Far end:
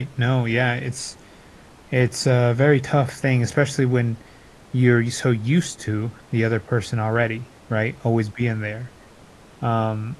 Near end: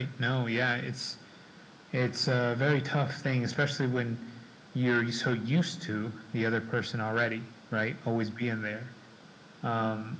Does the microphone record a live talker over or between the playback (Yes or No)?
No